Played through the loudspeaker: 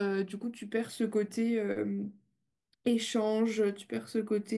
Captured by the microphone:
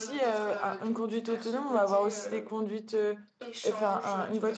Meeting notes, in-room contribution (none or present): present